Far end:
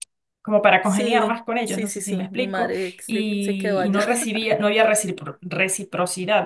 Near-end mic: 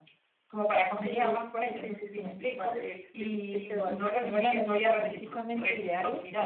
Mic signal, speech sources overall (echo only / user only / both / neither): both